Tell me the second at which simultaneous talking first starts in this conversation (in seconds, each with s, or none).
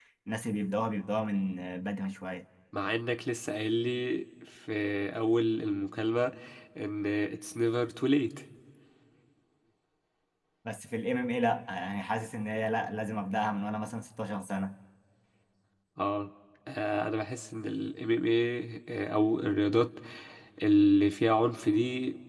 none